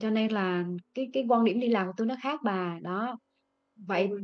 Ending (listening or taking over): listening